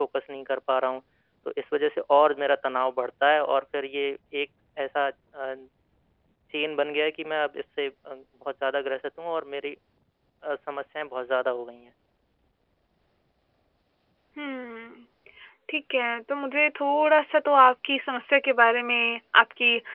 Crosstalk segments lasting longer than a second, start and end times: none

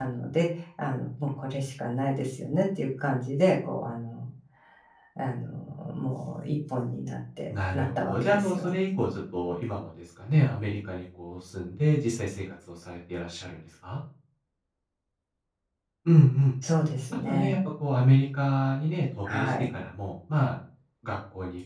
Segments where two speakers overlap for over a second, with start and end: 7.5-8.7

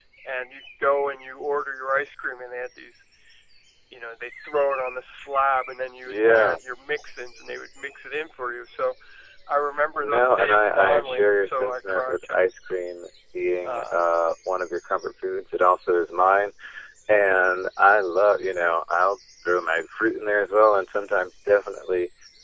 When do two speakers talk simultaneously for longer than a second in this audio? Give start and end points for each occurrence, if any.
10.0-12.4

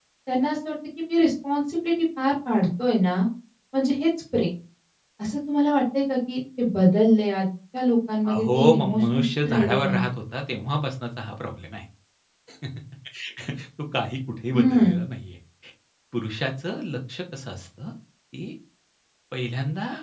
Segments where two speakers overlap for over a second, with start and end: 8.3-10.0

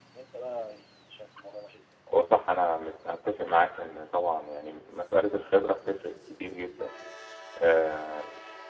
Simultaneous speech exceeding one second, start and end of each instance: none

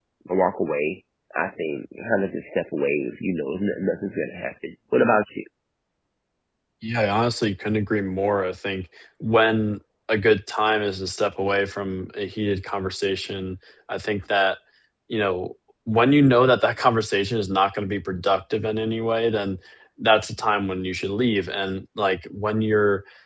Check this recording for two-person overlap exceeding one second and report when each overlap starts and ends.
none

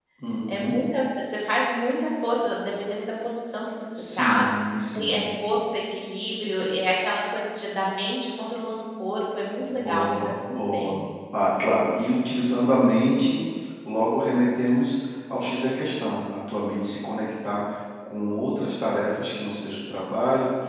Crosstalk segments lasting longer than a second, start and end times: 9.6-10.9

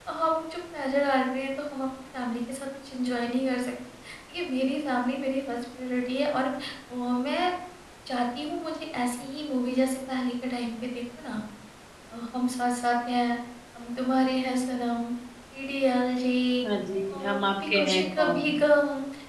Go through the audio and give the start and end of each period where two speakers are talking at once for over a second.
17.1-18.4

